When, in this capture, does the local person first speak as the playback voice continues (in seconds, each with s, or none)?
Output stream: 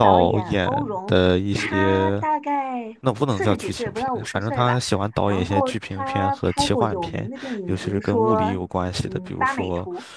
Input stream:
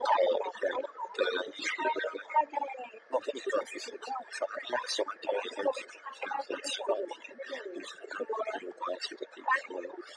none